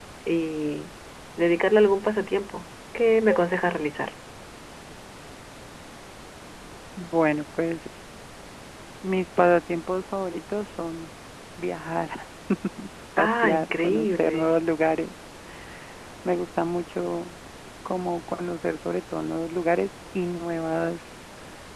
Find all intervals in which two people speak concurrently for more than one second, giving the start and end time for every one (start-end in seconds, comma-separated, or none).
13.2-14.4